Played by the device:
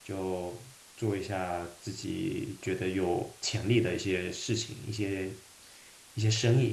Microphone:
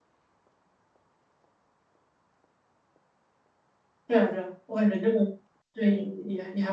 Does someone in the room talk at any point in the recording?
Yes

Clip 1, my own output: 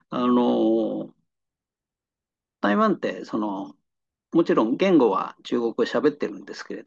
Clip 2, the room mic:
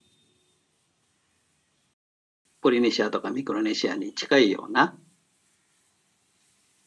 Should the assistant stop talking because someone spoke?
Yes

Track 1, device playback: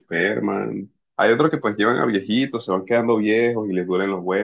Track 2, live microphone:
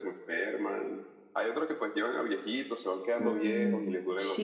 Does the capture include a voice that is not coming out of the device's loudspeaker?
Yes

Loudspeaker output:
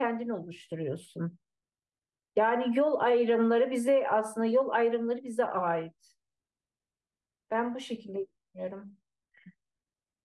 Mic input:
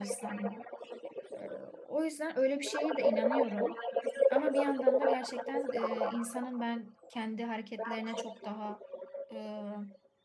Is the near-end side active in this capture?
Yes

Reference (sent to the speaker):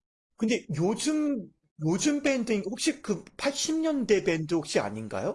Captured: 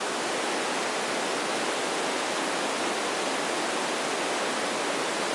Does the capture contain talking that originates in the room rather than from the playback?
No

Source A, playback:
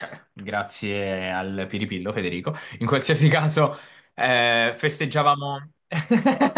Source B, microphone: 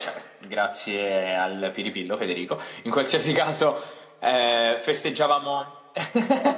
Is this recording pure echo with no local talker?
Yes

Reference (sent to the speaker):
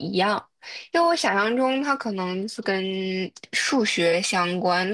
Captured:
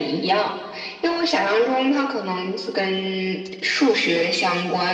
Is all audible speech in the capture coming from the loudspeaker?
Yes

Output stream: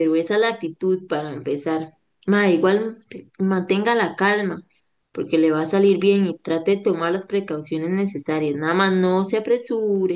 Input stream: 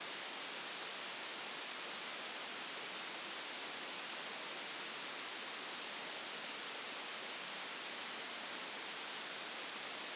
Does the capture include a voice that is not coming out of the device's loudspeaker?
No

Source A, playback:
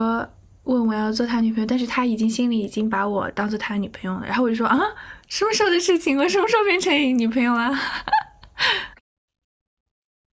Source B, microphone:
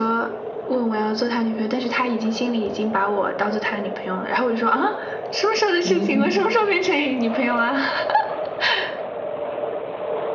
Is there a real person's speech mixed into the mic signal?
Yes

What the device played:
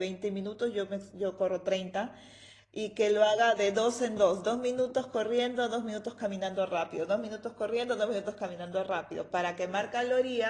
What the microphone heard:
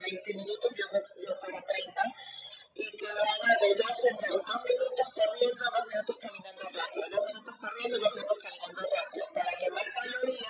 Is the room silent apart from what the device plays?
Yes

